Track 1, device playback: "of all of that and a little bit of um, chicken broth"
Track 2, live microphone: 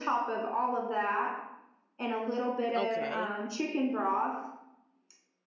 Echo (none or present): present